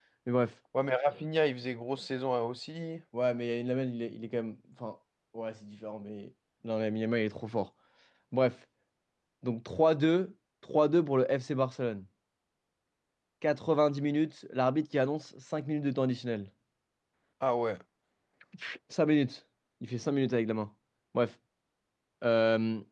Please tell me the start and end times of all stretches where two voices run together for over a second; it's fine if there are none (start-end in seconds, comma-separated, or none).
none